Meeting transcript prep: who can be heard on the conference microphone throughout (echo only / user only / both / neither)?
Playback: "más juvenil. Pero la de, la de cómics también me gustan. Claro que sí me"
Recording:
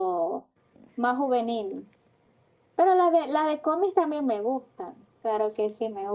echo only